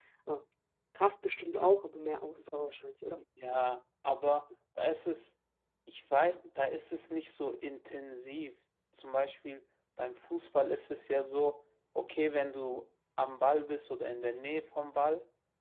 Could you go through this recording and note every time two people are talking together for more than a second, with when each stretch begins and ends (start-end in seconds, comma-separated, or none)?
none